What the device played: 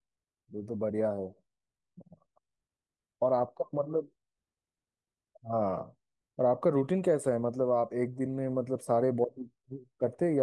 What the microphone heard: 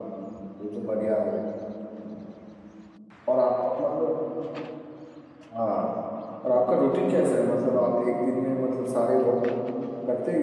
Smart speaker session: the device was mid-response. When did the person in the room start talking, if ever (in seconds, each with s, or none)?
none